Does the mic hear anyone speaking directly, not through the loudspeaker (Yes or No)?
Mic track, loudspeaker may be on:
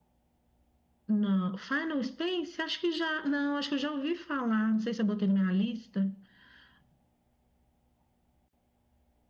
No